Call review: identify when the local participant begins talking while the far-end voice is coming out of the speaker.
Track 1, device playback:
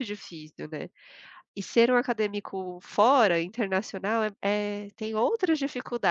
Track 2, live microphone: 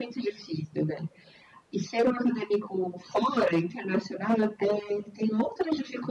none

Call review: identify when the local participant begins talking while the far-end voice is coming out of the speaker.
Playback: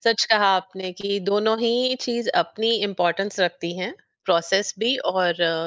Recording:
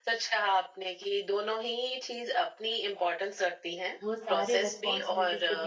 4.0 s

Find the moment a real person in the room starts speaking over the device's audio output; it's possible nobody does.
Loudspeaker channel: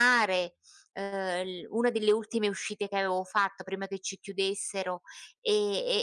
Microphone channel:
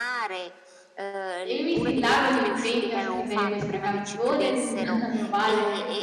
1.4 s

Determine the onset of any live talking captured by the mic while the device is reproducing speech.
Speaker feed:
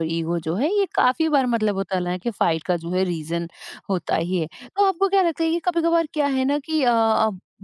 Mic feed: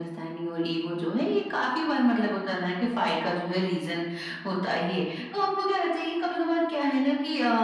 none

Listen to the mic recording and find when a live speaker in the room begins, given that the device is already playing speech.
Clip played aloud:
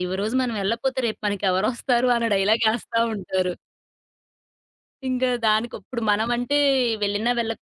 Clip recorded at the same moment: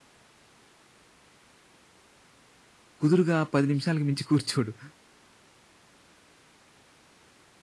3.0 s

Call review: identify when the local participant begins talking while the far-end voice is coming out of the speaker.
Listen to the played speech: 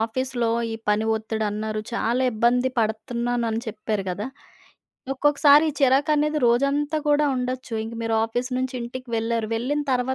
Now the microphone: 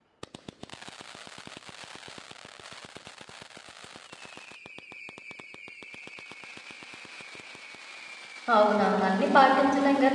8.5 s

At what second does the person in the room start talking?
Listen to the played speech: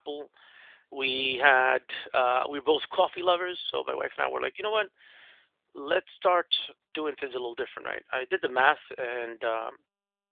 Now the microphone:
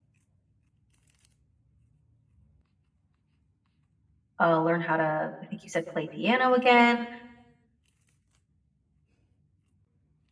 4.4 s

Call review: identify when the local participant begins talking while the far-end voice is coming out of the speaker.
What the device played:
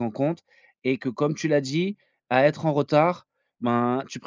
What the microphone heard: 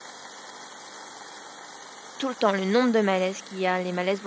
2.2 s

